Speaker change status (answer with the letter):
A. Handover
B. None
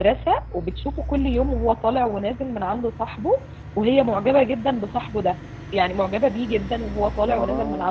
B